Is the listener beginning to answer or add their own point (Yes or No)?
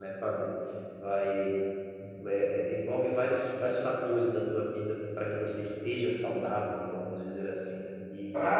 Yes